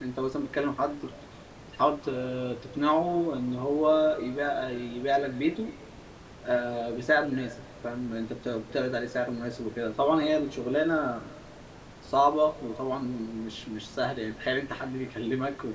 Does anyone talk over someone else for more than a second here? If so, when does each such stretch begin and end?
none

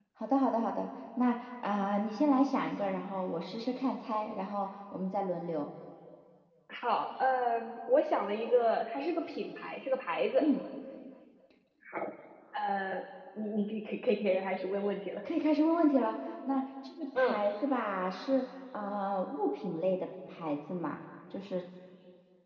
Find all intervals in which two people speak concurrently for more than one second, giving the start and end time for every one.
none

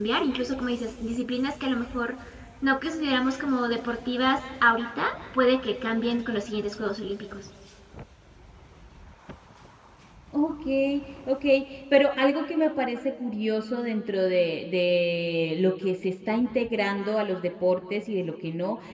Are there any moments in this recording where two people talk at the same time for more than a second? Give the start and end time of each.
none

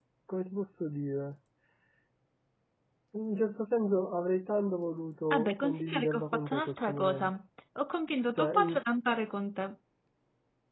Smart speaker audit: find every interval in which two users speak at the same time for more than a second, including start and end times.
5.3-7.3

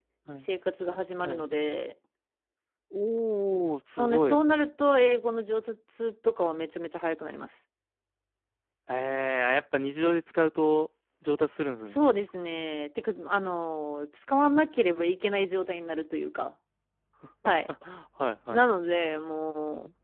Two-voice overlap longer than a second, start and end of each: none

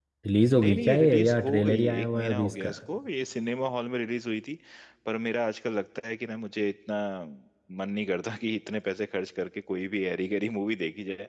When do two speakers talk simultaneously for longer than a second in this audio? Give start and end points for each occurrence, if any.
0.6-2.7

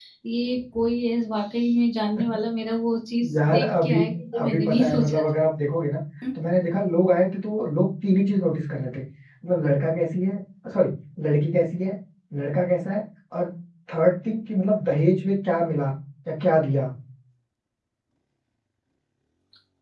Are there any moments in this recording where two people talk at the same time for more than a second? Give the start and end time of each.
3.4-5.3

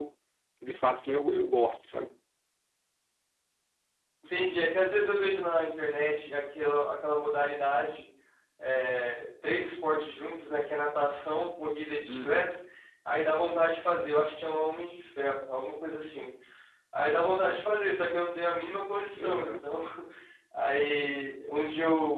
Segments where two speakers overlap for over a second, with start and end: none

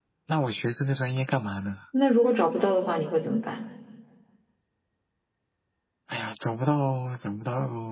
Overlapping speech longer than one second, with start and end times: none

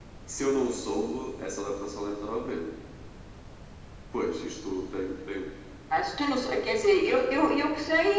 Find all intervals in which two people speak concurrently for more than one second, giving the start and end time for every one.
none

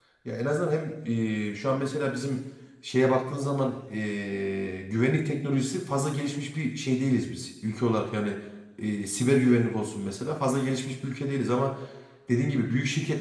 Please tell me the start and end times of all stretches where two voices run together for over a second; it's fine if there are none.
none

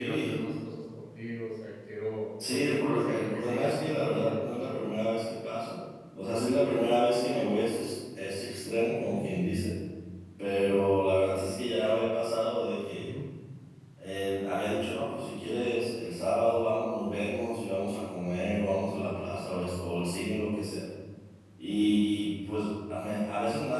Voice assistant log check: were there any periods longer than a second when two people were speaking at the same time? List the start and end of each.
2.5-4.8

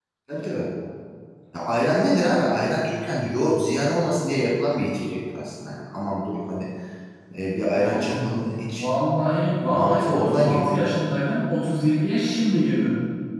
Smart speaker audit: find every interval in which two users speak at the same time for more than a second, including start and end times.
9.7-11.2

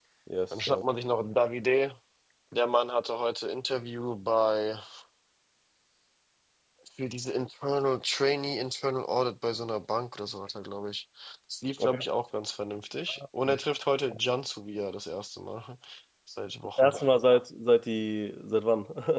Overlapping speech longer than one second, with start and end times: none

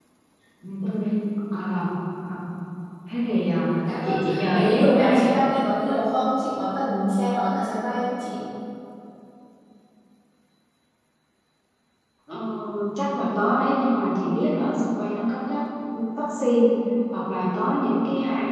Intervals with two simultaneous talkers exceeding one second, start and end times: 4.0-5.3

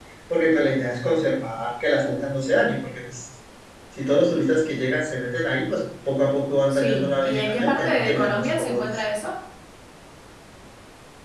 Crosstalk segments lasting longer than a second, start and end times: 6.7-9.0

